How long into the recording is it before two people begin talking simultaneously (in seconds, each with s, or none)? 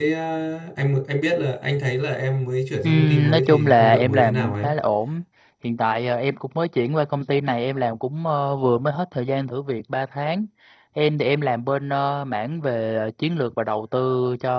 2.8 s